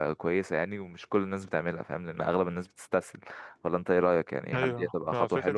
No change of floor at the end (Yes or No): No